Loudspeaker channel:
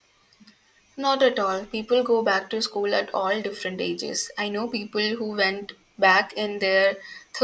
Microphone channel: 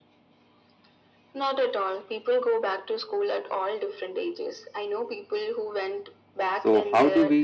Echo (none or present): present